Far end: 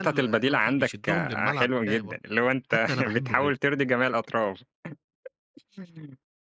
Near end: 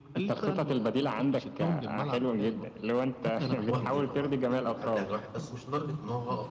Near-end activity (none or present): present